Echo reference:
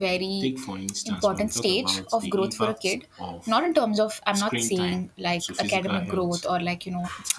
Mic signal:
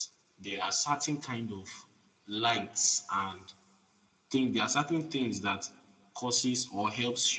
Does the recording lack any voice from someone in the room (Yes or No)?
No